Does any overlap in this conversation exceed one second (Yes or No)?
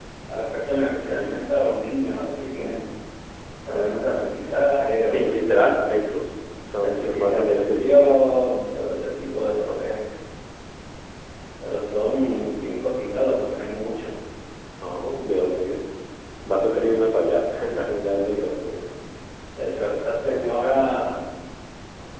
Yes